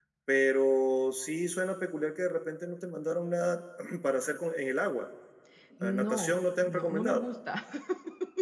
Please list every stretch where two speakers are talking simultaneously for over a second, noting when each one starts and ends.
5.8-7.2

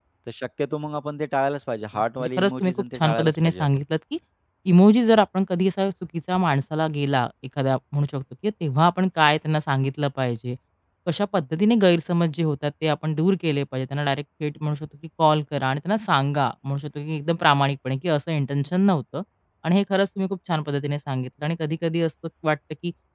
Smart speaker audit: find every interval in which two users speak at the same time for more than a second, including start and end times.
1.9-3.8

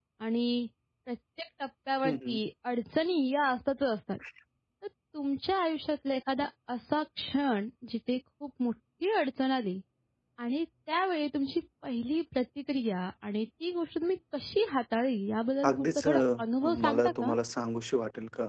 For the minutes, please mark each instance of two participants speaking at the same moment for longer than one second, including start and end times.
15.7-17.3

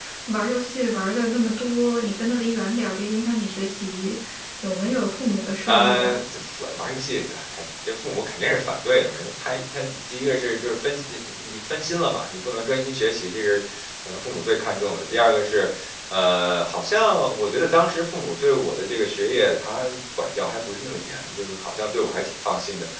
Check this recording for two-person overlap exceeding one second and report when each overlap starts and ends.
none

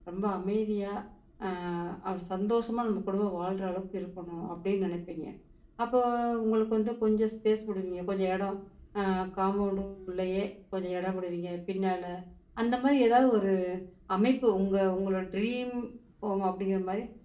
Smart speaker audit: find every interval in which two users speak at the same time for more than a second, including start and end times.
none

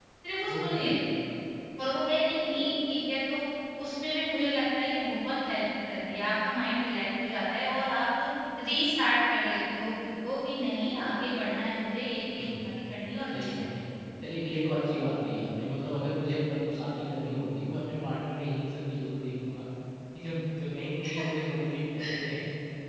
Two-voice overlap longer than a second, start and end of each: none

